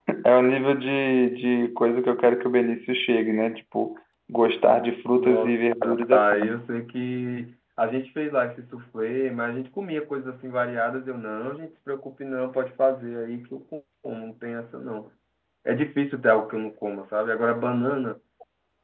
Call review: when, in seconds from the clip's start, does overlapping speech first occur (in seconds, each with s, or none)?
5.2 s